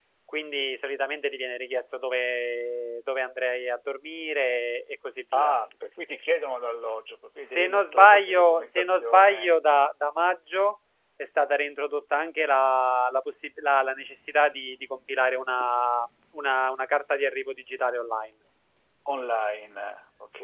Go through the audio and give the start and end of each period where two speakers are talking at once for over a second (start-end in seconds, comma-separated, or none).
7.4-9.5